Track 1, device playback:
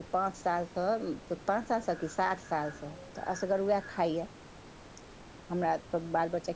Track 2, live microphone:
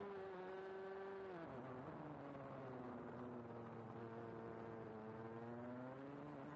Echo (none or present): none